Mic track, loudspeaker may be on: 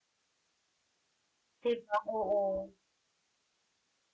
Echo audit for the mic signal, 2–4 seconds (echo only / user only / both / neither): user only